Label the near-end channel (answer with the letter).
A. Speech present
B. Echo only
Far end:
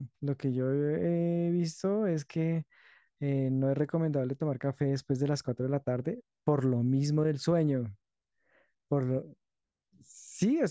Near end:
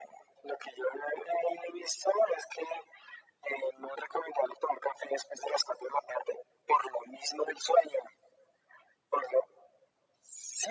B